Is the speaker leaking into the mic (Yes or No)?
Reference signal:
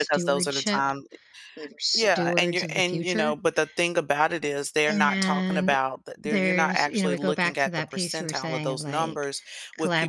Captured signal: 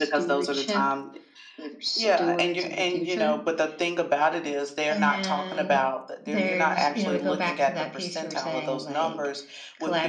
Yes